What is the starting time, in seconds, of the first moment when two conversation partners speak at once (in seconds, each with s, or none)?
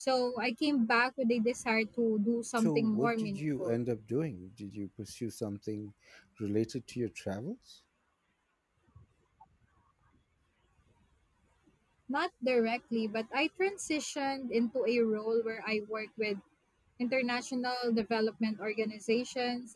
2.6 s